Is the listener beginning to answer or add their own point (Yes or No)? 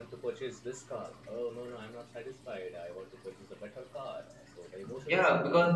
Yes